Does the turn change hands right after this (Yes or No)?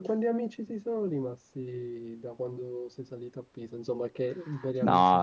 Yes